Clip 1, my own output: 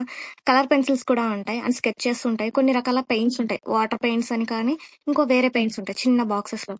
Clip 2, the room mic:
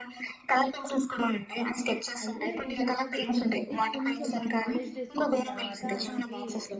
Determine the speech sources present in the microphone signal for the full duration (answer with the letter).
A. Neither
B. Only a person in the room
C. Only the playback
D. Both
D